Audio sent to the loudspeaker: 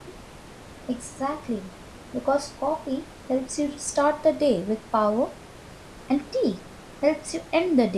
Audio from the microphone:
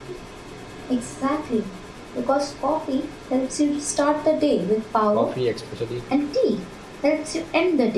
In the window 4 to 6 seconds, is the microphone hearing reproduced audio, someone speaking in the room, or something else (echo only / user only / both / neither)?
both